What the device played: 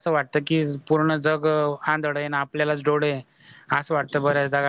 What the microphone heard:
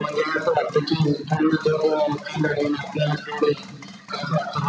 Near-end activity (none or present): none